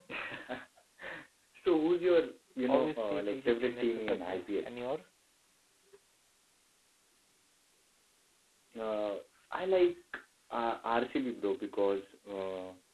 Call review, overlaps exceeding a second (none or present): present